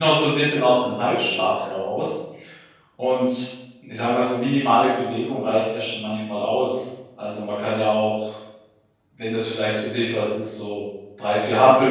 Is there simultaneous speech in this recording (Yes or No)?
No